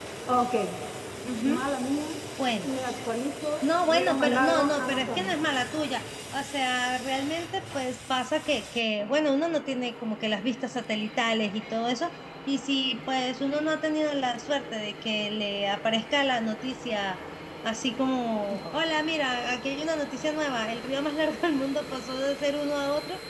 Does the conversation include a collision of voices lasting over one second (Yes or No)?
Yes